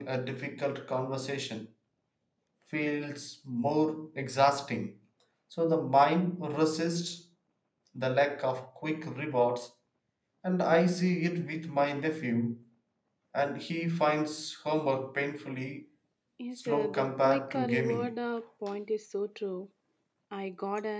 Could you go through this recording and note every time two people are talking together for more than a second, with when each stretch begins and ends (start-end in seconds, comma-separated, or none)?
16.7-18.1